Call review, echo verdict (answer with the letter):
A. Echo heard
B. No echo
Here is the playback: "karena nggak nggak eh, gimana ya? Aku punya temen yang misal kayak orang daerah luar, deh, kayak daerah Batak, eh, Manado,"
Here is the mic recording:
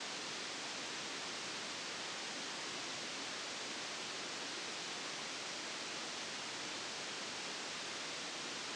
B